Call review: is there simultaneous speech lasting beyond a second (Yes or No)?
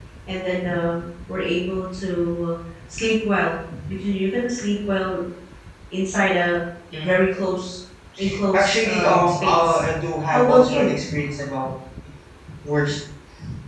Yes